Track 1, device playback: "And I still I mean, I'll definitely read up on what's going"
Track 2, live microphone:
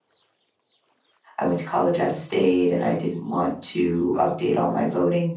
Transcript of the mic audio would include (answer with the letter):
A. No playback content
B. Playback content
A